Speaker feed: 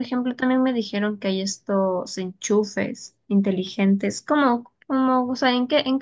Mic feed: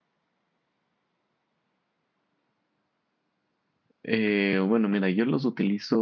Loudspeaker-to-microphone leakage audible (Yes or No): No